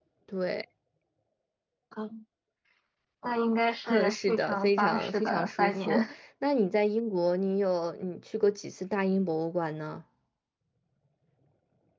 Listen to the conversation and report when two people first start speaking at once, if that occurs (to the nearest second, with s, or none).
4 s